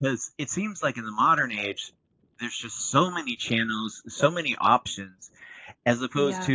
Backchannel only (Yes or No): Yes